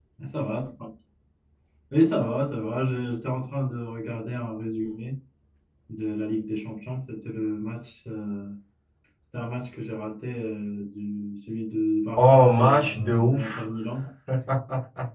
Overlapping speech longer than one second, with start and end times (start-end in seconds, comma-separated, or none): 12.2-13.6